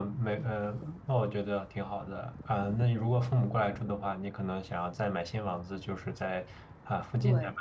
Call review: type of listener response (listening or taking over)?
listening